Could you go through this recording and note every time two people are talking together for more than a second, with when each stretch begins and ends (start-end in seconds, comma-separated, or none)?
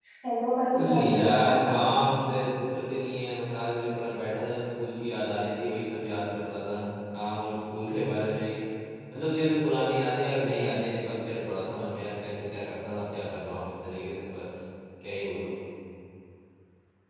0.7-2.0